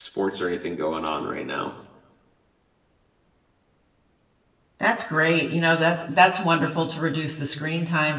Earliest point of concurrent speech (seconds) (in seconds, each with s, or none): none